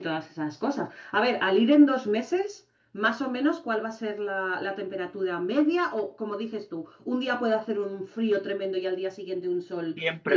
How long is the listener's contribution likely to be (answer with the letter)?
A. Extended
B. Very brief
A